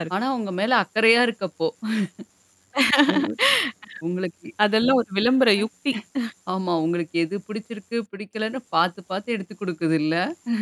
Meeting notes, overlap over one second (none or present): none